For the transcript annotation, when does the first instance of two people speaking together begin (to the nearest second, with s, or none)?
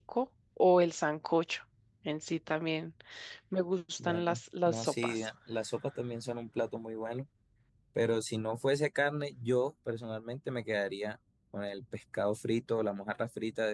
4 s